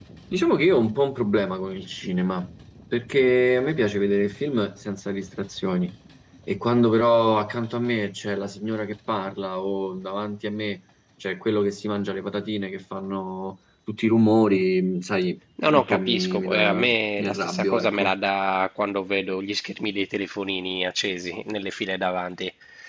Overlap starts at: 16 s

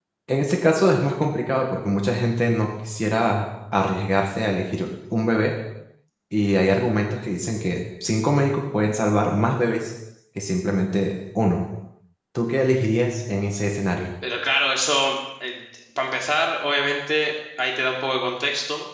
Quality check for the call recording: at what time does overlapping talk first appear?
none

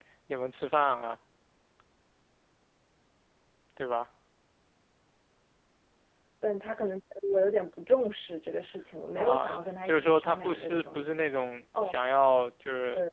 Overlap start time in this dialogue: 9 s

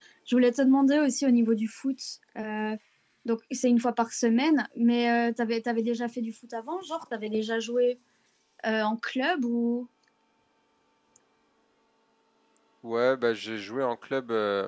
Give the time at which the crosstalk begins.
none

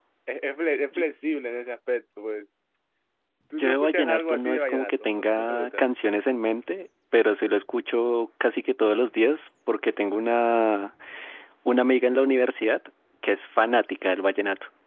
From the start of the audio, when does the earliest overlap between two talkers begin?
4 s

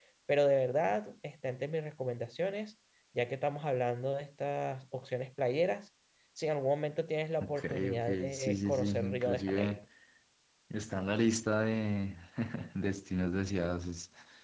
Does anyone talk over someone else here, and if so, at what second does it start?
7 s

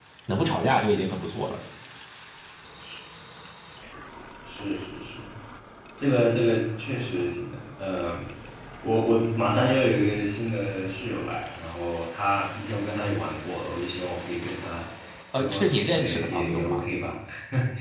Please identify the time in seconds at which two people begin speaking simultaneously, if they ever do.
15 s

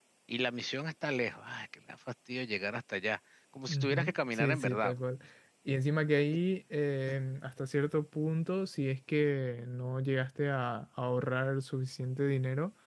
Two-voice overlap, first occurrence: 4 s

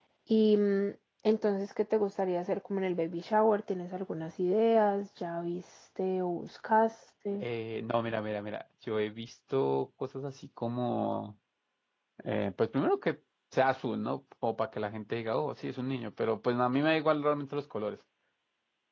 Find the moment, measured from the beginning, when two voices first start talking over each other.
none

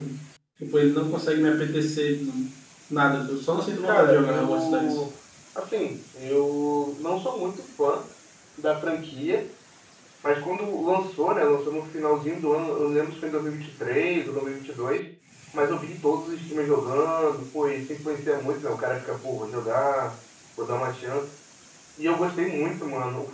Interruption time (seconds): 4 s

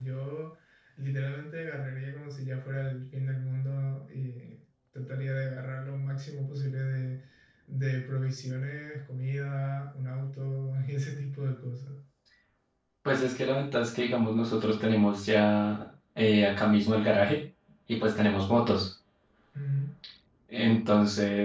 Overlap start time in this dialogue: none

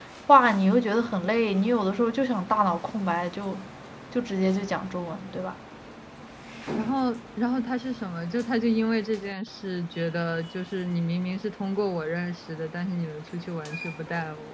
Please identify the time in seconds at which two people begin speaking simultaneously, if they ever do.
none

